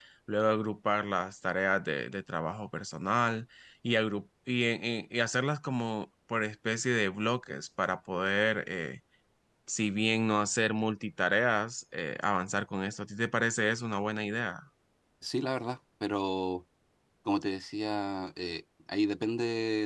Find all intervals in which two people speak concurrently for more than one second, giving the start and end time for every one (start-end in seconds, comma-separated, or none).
none